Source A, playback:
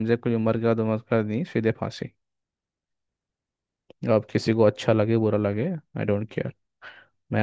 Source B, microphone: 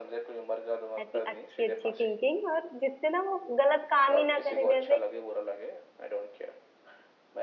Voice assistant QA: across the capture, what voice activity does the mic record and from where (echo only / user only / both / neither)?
both